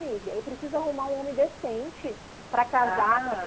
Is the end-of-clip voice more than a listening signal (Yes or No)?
Yes